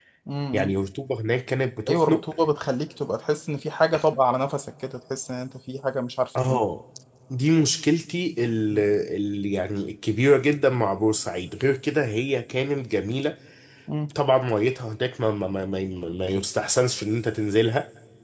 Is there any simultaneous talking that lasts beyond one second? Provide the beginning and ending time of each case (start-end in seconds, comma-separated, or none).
none